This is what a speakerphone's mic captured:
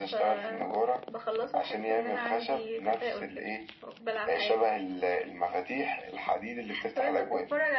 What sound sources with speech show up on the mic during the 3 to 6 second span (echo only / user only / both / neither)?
echo only